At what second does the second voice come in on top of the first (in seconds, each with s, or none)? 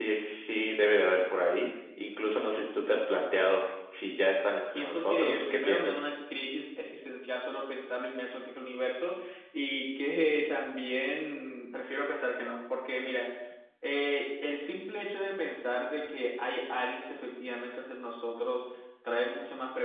4.8 s